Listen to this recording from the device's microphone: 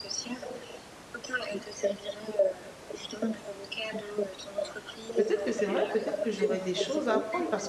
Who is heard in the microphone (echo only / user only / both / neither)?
both